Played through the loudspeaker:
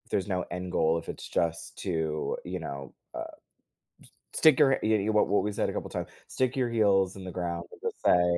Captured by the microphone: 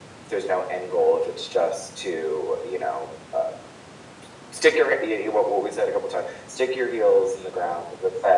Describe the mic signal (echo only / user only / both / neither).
echo only